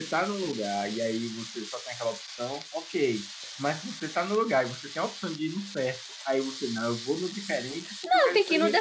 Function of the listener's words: taking over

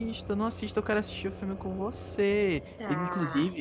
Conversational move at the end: listening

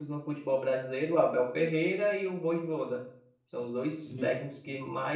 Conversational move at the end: listening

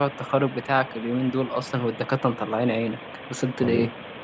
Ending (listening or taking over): taking over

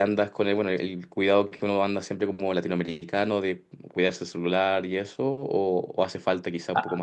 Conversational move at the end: taking over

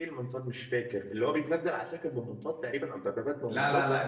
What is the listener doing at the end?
taking over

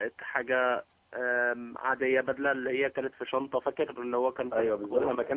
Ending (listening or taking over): taking over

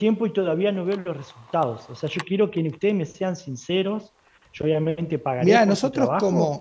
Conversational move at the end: taking over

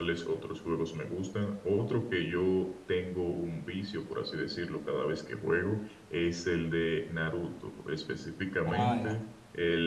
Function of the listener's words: listening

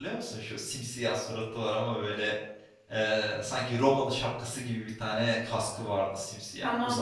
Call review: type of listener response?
taking over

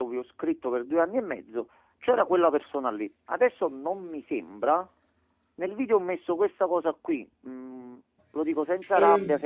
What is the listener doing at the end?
listening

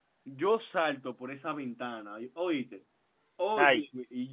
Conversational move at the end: listening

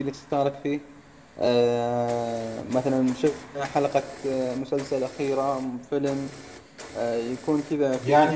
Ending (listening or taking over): taking over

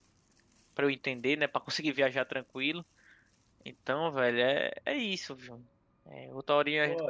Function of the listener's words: listening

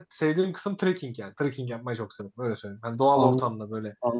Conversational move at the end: taking over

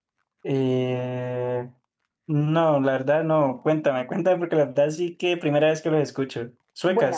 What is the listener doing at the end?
taking over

